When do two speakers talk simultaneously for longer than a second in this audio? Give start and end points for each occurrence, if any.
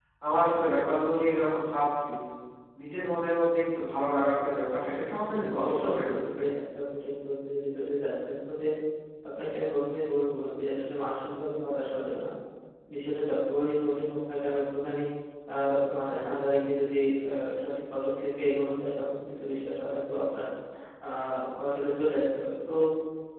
4.9-6.4

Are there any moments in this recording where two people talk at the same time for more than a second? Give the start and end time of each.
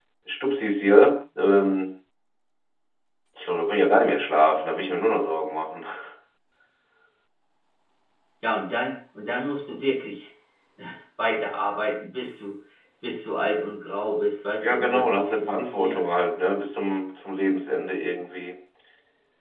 14.6-16.0

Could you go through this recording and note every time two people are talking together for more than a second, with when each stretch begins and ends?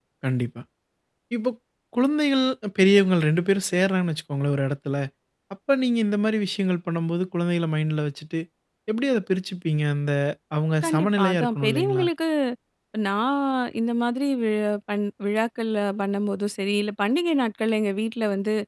10.8-12.0

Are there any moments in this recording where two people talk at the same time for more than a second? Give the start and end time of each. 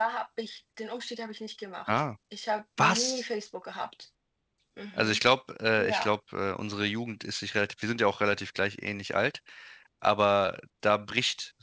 none

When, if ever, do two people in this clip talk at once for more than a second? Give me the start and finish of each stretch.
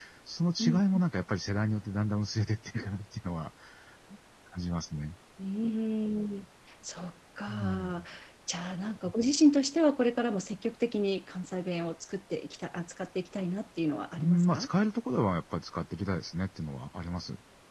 none

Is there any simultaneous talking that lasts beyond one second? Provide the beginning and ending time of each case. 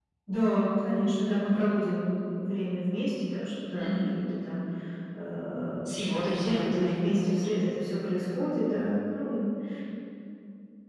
5.8-7.6

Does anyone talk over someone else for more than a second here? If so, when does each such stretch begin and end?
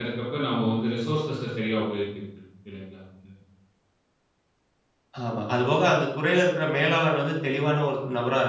none

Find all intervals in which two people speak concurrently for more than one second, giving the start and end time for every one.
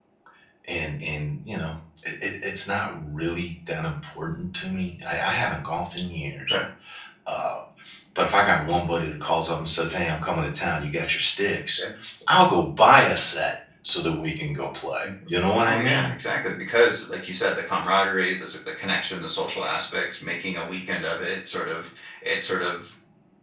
none

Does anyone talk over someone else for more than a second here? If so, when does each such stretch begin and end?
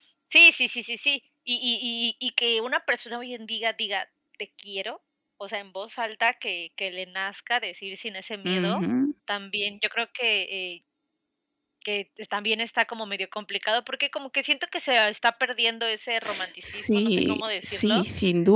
16.6-18.0

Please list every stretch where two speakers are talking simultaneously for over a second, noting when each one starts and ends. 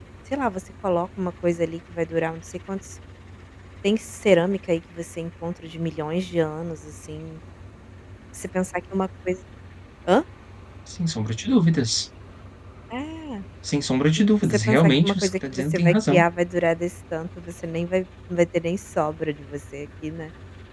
14.2-16.2

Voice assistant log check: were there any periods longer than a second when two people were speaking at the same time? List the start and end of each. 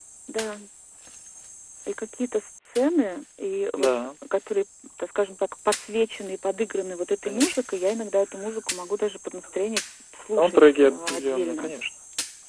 10.3-11.7

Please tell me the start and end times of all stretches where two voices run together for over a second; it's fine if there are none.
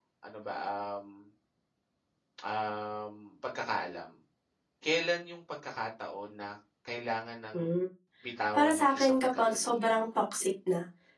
8.6-9.9

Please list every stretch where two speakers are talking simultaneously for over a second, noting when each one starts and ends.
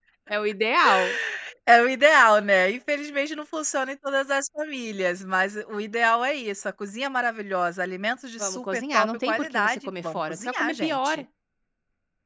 8.4-11.2

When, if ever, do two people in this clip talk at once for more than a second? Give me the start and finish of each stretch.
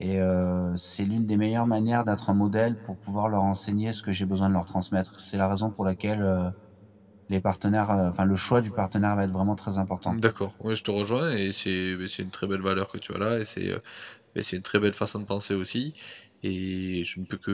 none

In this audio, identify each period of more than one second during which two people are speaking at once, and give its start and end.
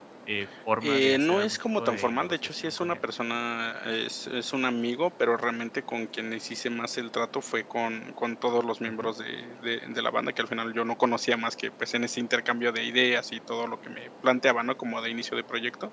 0.8-3.0

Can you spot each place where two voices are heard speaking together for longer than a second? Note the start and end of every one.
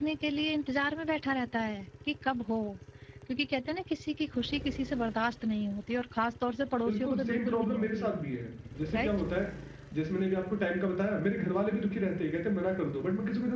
6.9-8.2

